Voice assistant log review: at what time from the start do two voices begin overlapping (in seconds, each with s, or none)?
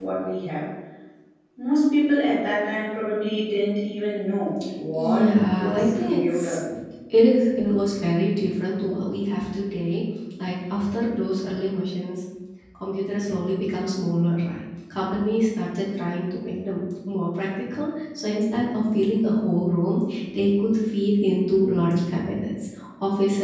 5.0 s